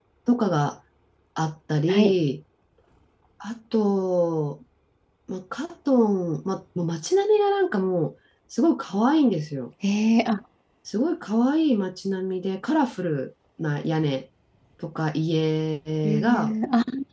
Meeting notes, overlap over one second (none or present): none